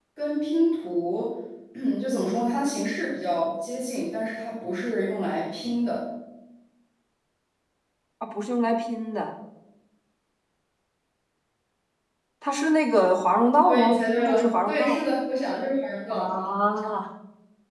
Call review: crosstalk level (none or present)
present